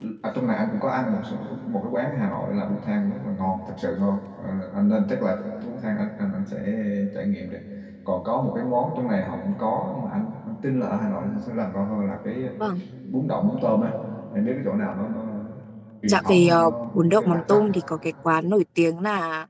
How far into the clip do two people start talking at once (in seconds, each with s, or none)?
16.1 s